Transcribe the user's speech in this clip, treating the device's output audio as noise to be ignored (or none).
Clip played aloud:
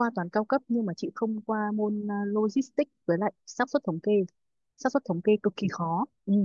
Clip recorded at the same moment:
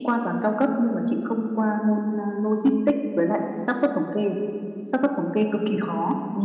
none